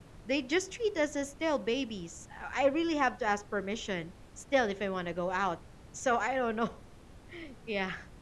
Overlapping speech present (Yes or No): No